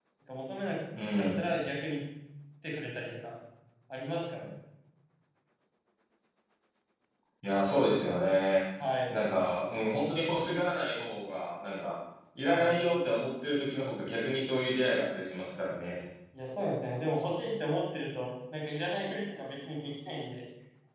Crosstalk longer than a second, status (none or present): none